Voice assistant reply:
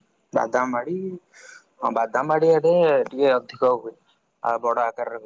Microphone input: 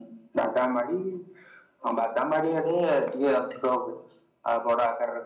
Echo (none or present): present